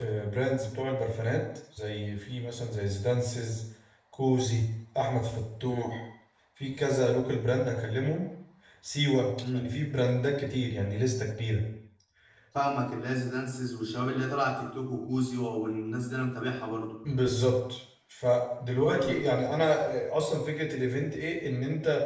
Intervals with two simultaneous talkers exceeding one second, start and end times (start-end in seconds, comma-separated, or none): none